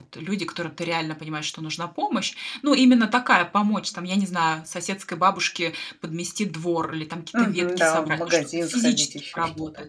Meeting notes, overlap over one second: present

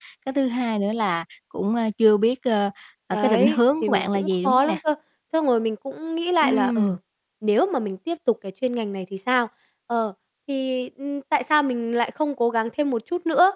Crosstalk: present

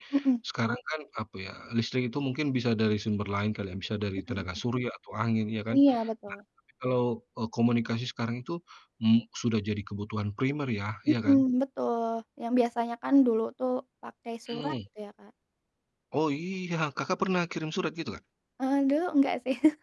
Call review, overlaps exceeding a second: none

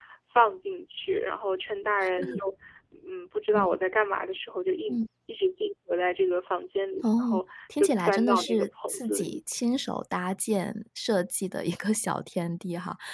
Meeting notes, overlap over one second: present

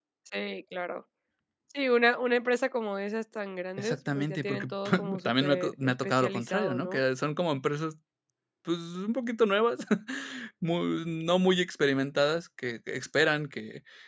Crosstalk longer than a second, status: present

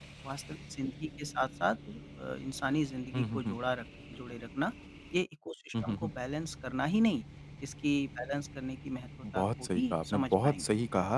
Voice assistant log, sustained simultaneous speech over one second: present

